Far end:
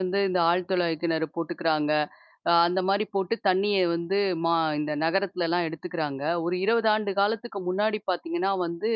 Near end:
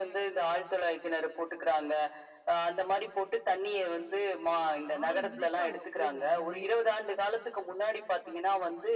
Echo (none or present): present